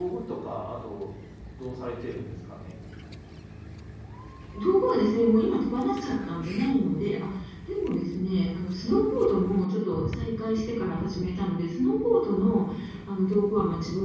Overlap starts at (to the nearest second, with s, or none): none